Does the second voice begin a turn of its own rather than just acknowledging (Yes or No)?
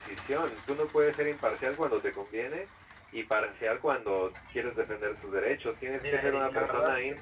Yes